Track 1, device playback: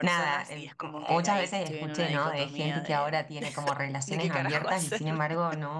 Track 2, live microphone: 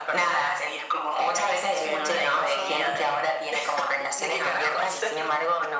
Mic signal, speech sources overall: both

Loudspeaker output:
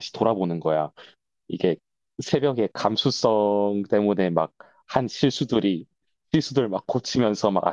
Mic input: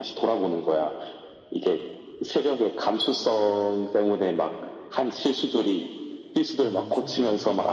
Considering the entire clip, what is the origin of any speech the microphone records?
both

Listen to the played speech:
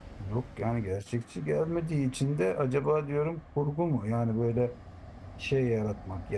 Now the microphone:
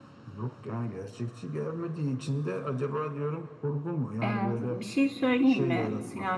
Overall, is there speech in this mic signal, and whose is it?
both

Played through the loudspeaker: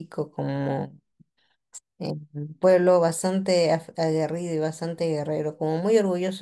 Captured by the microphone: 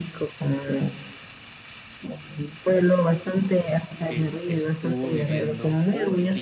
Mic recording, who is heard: both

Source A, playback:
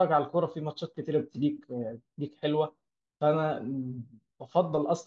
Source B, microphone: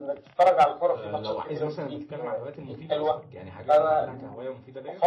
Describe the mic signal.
both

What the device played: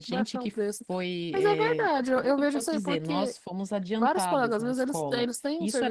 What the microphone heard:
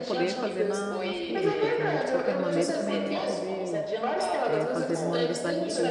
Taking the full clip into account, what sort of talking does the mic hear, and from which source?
both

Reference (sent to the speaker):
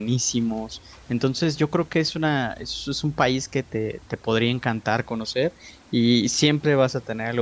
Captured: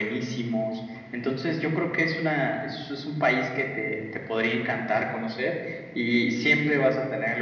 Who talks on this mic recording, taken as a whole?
echo only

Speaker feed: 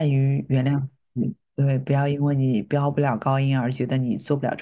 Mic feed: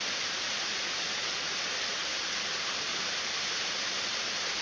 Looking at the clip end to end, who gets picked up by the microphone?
neither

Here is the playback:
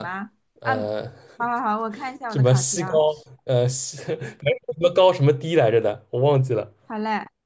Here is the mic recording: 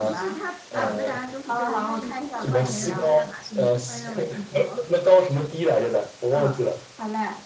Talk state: both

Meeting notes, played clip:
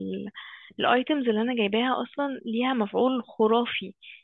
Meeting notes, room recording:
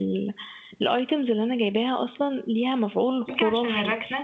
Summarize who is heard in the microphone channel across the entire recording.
both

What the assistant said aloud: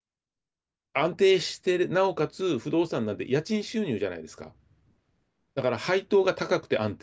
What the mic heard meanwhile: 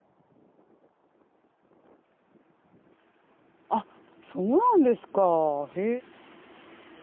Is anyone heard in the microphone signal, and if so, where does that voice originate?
user only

